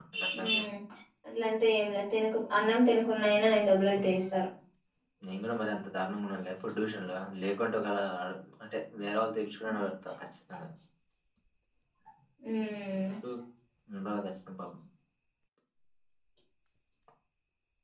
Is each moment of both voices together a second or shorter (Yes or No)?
Yes